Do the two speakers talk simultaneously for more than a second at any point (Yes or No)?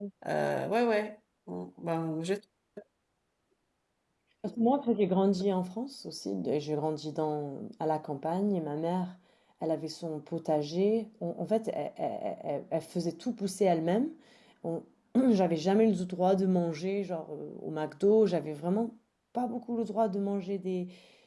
No